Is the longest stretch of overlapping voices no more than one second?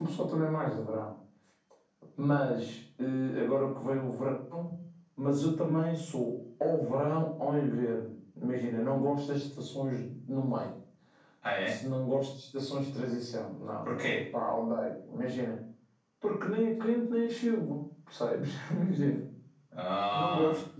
Yes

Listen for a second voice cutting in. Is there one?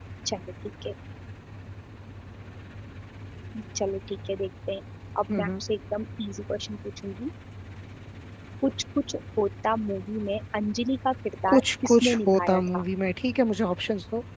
Yes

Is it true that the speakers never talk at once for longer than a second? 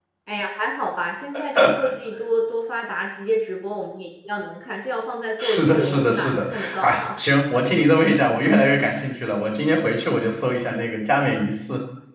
No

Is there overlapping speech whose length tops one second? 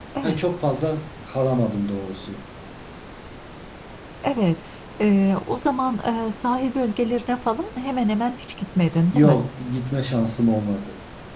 No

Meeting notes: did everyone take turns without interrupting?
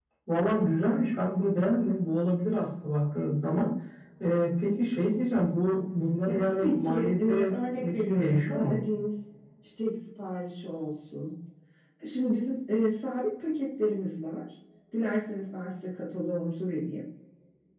No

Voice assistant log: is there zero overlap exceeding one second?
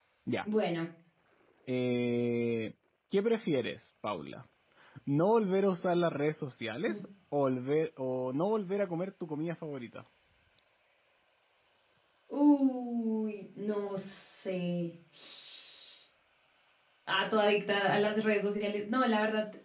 Yes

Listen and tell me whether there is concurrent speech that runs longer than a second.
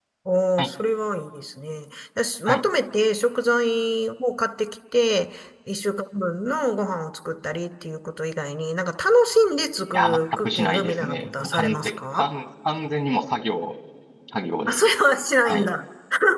Yes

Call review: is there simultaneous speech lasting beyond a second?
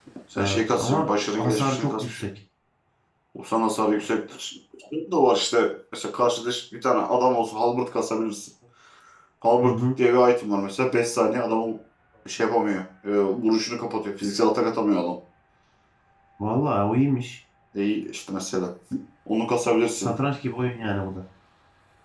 Yes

